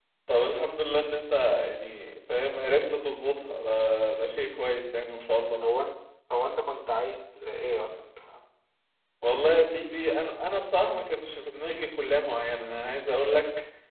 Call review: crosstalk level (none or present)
none